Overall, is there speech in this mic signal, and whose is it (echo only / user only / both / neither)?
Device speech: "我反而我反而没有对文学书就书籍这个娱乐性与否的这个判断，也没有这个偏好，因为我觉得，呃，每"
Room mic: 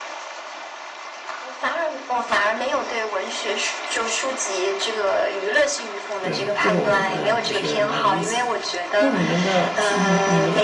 both